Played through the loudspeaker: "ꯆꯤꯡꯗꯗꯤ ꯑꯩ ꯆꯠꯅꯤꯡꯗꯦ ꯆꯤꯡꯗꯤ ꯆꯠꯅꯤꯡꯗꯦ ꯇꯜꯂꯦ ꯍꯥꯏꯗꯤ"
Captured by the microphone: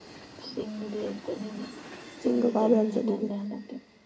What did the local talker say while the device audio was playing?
ꯆꯤꯡꯒ ꯀꯥꯕ ꯌꯥꯝ ꯆꯠꯅꯤꯡꯉꯤ

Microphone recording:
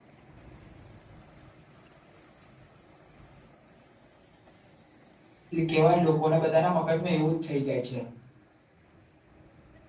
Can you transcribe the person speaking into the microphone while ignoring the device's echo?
લી કેવાય લોકોને બધા ના મગજમાં એવું જ થઇ જાય છે.

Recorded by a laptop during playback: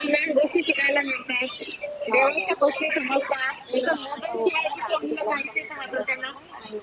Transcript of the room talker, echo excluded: none

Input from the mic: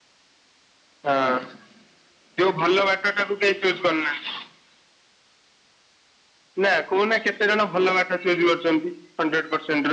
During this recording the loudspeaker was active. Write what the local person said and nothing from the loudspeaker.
none

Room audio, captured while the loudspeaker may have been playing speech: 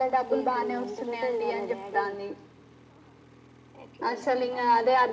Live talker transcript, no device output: none

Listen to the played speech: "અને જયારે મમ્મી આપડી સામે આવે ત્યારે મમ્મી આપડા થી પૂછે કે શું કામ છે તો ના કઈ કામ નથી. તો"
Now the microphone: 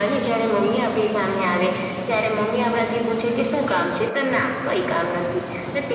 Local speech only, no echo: none

